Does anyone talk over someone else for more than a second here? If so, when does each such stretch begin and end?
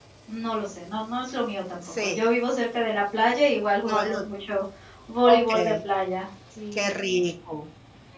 none

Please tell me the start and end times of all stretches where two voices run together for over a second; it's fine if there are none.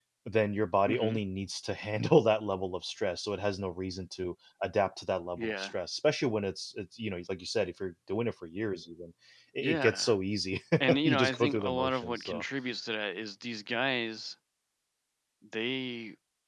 11.1-12.4

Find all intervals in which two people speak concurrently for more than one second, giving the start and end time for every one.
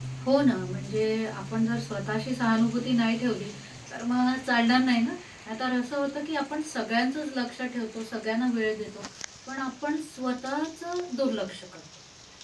none

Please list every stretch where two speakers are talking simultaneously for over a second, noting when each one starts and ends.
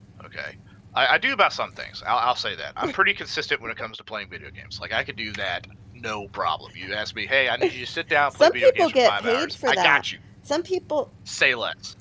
8.3-10.0

